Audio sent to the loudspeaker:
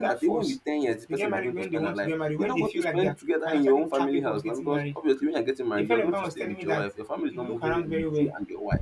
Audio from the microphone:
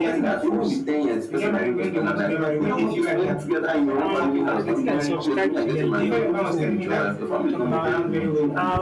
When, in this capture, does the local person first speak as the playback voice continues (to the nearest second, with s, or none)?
4 s